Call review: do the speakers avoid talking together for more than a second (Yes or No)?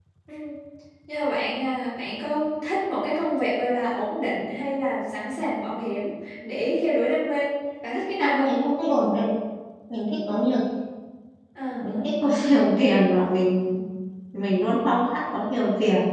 Yes